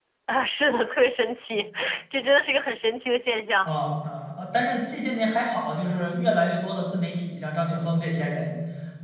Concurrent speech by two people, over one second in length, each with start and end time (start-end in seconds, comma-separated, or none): none